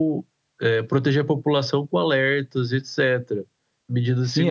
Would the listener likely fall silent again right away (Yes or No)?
No